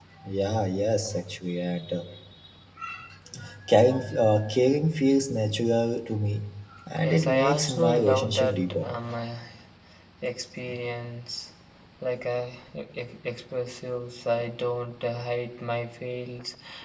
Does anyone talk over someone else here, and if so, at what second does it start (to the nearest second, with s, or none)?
7 s